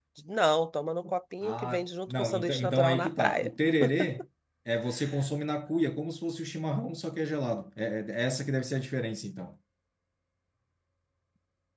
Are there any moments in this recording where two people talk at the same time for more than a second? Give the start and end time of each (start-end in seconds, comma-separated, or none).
1.4-3.5